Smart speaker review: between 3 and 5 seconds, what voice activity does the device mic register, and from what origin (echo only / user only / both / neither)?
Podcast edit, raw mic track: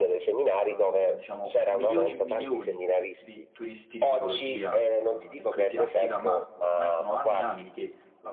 both